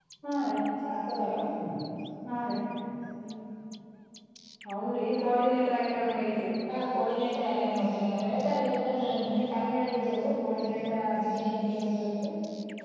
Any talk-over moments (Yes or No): No